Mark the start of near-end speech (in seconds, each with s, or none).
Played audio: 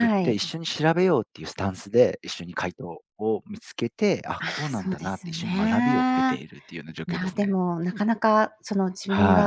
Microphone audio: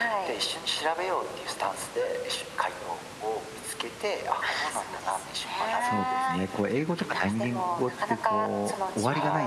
5.8 s